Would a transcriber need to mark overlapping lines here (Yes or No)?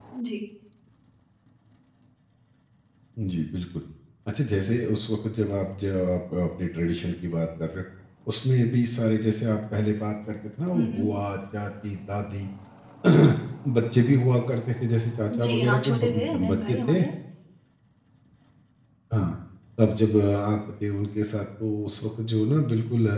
Yes